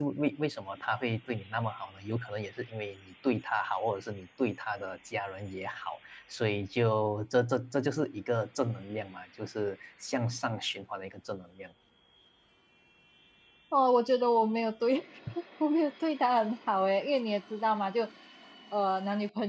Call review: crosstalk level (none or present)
none